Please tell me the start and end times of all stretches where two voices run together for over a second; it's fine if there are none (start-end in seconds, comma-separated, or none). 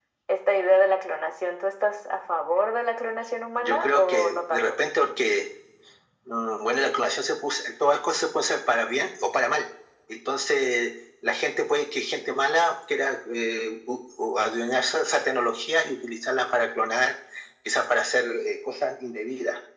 3.5-4.8